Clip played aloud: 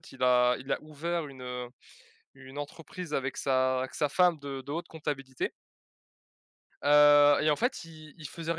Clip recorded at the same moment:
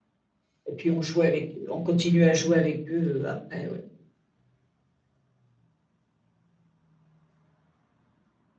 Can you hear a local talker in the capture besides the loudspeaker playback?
Yes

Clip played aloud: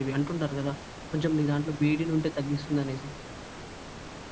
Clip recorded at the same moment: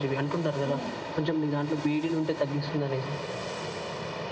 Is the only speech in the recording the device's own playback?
No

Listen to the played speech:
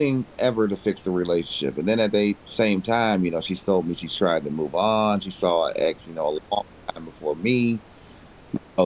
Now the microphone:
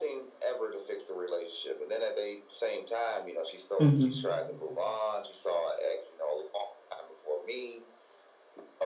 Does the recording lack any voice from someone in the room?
No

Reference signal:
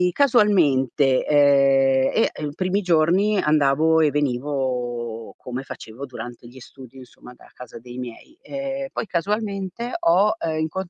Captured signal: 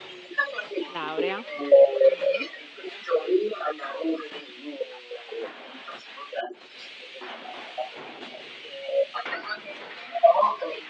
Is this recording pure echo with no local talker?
No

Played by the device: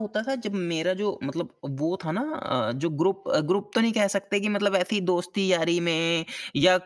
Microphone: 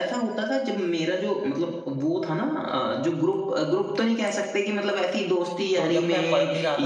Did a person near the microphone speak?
Yes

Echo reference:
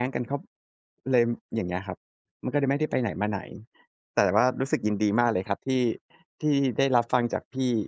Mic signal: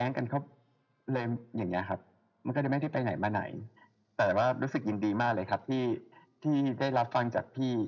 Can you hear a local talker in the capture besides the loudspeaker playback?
No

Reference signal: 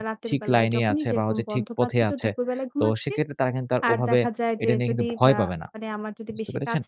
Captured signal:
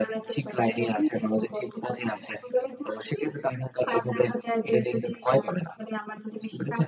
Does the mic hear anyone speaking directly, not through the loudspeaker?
No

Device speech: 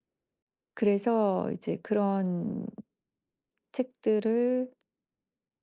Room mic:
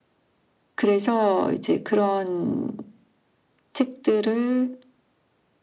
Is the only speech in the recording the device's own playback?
Yes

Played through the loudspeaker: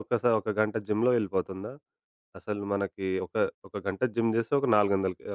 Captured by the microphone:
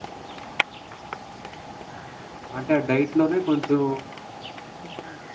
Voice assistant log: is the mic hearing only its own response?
No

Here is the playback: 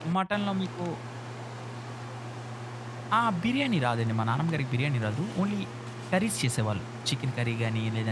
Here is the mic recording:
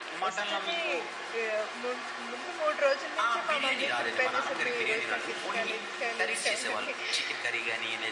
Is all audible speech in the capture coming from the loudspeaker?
No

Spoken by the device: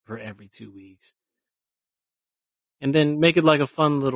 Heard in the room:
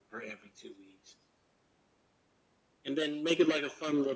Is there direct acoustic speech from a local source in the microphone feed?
No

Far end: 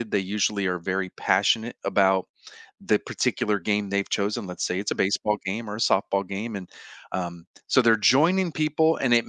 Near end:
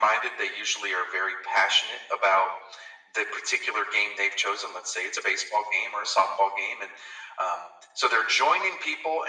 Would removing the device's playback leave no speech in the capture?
Yes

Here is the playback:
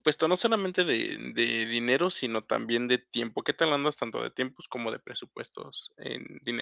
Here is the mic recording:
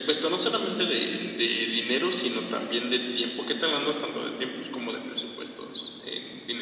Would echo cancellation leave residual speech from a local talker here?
No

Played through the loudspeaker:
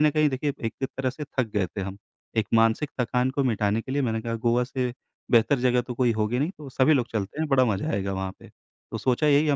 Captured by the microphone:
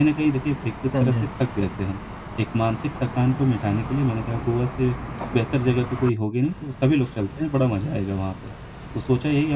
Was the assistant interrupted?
Yes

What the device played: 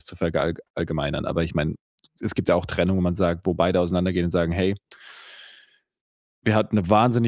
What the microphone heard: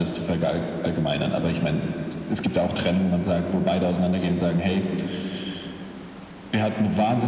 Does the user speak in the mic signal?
No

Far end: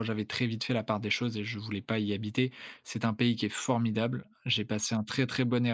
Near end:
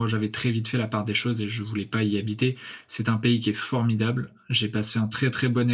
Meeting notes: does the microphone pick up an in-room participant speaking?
No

